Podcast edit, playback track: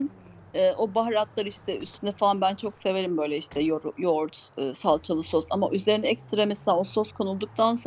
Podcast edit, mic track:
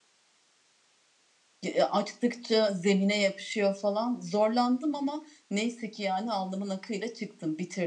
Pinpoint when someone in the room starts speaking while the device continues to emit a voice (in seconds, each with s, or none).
1.6 s